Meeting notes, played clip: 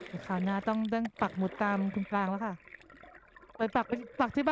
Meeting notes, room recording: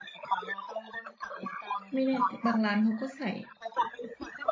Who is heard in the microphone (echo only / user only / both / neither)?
both